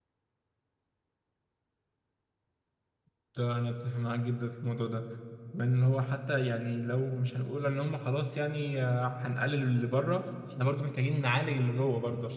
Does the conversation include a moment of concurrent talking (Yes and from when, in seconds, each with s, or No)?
No